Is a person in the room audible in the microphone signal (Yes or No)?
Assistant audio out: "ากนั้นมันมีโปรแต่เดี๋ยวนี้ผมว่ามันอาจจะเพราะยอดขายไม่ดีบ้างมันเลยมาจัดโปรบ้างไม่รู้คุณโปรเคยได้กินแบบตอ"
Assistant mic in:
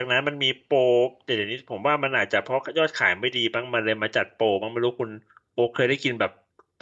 No